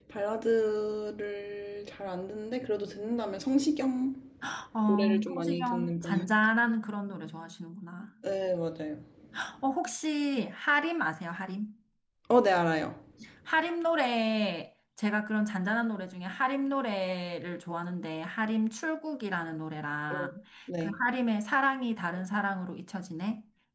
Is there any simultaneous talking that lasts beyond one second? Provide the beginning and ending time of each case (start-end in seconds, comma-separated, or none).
4.9-6.3